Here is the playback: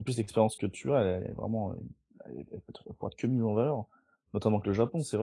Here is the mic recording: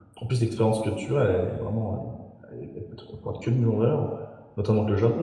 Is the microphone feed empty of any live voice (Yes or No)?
Yes